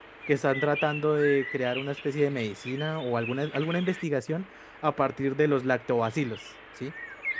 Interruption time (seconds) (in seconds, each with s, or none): none